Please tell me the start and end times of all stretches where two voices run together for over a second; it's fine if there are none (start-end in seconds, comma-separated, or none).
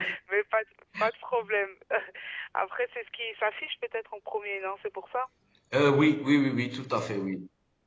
none